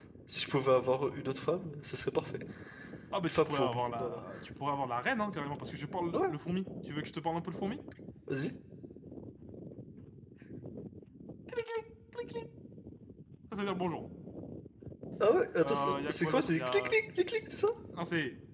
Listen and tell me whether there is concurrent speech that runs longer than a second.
Yes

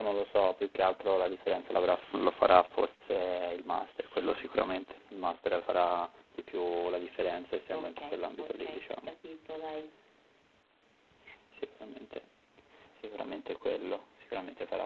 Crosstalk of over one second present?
No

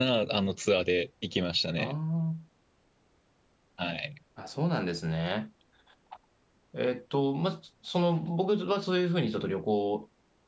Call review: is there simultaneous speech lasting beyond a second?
No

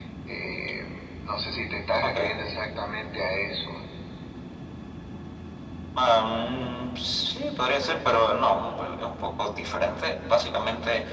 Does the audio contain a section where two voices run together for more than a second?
No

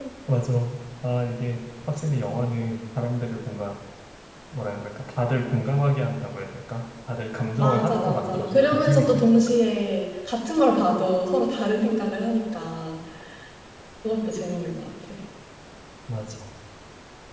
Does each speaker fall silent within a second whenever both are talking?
No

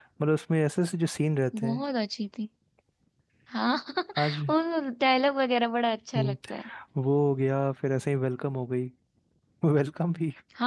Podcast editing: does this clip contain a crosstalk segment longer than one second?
No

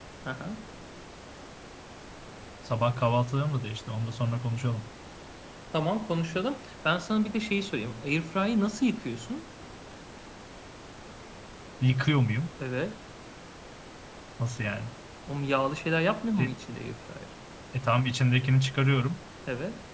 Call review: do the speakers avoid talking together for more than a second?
Yes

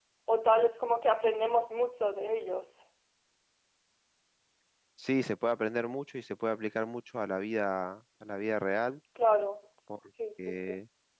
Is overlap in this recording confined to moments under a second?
Yes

